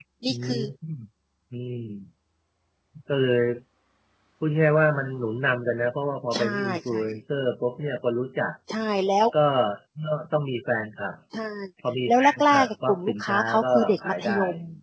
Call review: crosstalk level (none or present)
present